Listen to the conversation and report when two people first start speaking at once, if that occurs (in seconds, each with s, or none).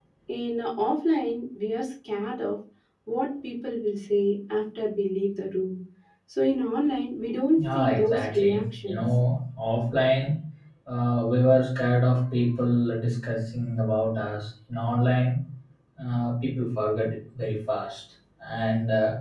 7.6 s